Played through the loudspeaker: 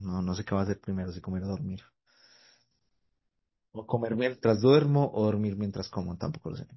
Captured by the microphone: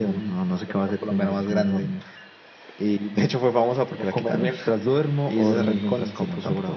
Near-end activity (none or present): present